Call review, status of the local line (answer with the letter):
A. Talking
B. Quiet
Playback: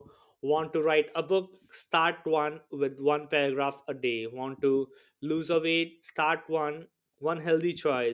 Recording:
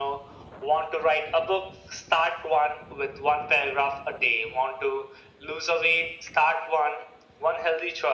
B